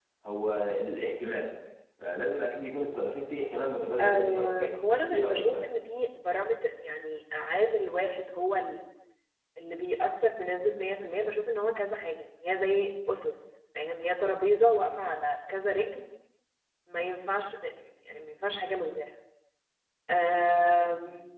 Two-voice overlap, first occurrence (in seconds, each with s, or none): 4.0 s